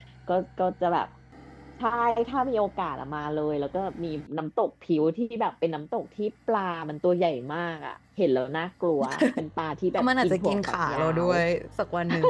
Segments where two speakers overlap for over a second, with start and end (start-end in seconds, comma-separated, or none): 9.9-11.3